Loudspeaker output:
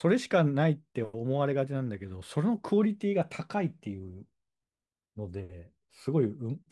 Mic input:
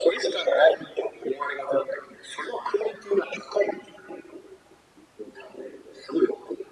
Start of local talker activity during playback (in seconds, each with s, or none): none